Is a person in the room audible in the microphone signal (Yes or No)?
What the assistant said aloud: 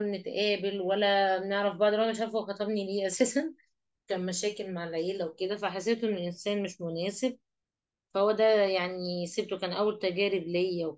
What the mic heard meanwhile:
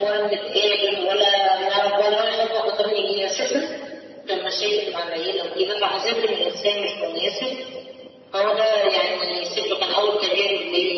No